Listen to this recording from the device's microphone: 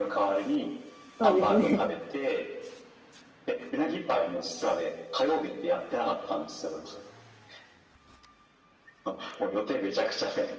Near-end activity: present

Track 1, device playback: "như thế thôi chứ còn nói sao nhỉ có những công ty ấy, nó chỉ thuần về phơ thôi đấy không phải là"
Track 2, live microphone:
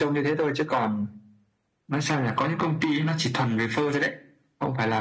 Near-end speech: none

